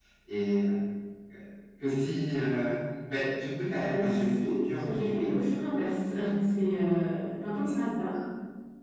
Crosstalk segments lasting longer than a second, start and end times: 3.8-5.3

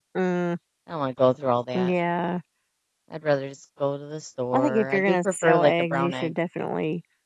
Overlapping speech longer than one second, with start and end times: 4.5-6.3

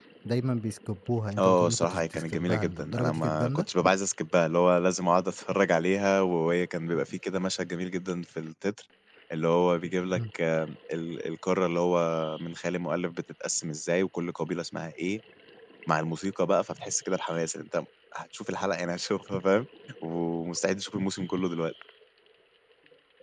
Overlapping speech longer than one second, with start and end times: 1.4-3.6

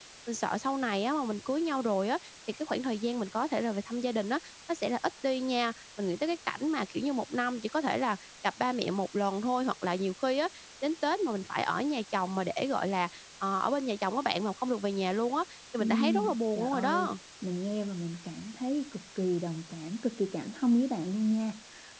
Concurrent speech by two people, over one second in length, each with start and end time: 15.8-17.1

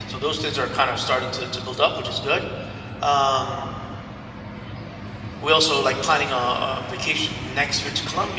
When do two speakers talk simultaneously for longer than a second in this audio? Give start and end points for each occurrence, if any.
none

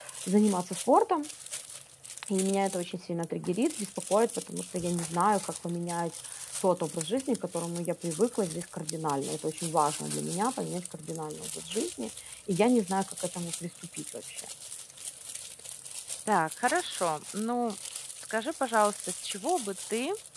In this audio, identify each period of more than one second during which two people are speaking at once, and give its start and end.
none

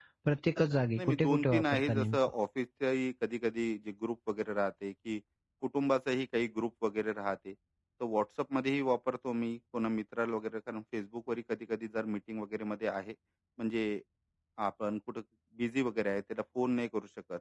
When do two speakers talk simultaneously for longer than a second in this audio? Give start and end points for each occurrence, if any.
1.0-2.2

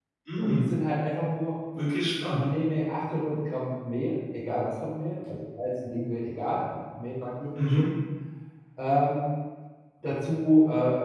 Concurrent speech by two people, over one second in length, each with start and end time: none

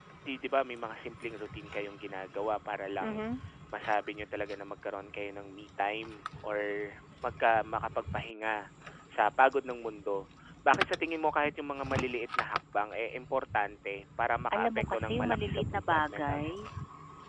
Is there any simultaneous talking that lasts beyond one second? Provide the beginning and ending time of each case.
14.5-16.6

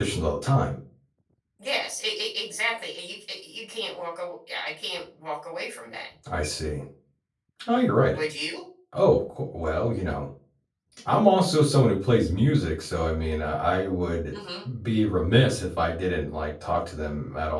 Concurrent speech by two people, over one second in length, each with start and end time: none

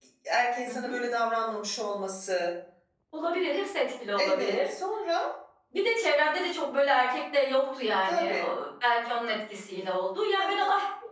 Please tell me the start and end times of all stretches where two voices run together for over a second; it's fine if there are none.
none

